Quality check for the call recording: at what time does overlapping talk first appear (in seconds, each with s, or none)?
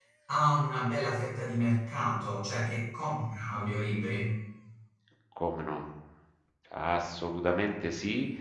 none